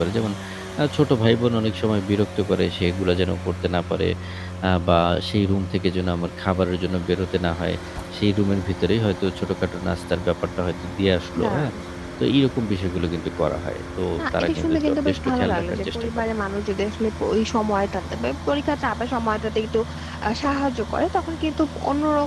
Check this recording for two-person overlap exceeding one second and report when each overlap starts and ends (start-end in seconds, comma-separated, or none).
14.2-16.3